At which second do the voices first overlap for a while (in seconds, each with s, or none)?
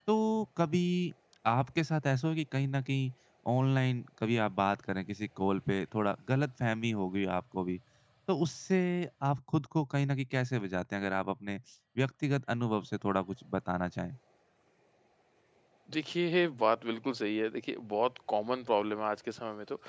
none